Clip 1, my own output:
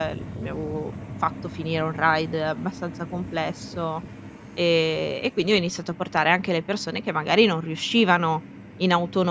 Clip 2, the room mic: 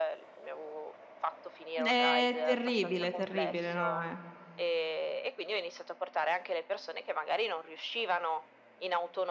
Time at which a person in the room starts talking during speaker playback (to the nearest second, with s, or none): 2 s